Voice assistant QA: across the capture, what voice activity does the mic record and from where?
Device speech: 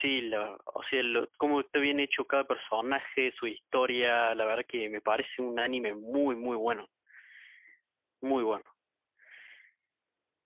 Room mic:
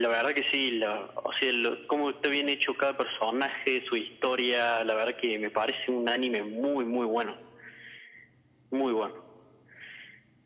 echo only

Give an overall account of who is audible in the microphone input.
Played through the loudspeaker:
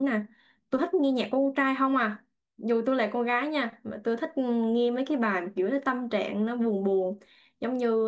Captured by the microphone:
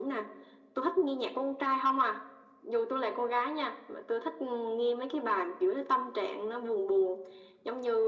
echo only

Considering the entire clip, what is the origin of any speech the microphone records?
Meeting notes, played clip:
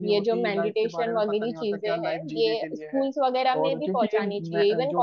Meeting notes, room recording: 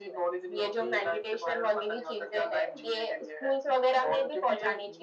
echo only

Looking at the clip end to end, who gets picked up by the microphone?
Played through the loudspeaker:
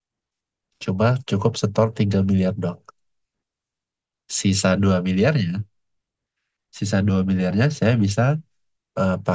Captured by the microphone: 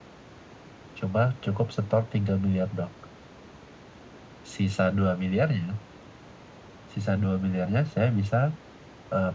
echo only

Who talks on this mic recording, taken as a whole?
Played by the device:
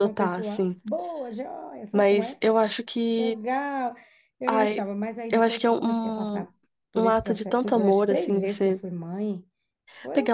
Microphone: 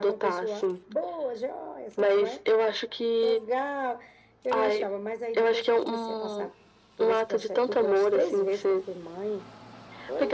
echo only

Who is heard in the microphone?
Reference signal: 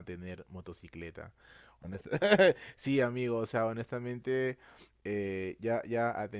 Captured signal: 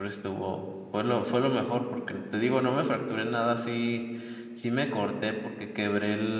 user only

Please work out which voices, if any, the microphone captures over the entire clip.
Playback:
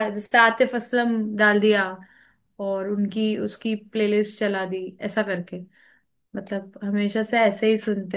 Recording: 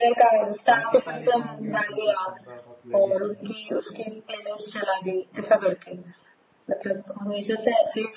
both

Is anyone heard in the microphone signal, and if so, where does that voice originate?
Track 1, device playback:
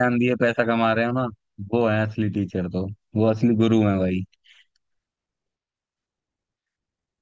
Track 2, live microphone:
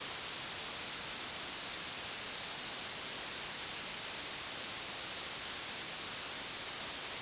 neither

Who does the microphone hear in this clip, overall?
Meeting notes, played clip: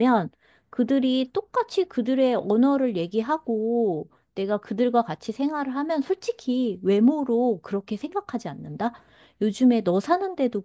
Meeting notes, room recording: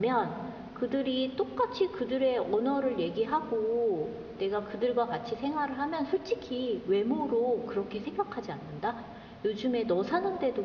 echo only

